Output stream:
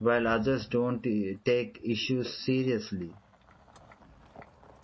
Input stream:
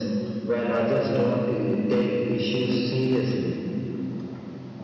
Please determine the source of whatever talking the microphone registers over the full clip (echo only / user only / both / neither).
echo only